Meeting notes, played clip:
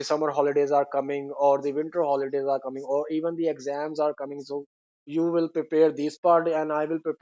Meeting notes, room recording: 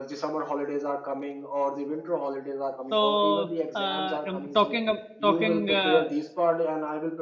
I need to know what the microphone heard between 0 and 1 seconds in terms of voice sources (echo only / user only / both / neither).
echo only